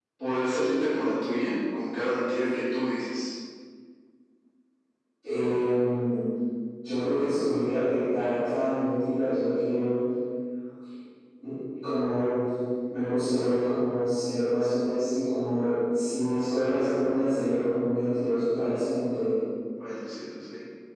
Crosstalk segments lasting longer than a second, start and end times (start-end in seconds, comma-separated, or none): none